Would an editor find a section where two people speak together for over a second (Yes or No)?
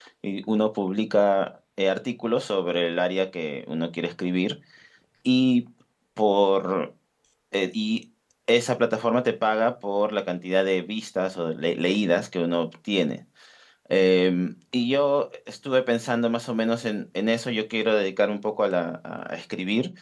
No